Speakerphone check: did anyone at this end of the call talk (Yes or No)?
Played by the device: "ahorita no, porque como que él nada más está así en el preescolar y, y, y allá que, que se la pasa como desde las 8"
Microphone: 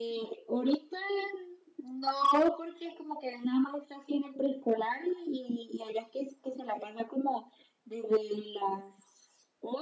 No